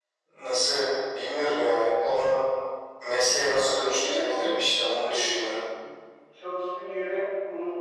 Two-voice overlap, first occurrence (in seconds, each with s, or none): 3.9 s